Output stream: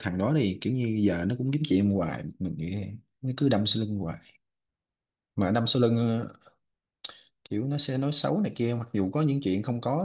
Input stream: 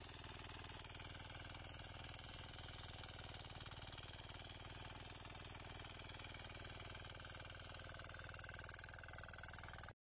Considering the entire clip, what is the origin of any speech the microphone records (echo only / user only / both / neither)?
neither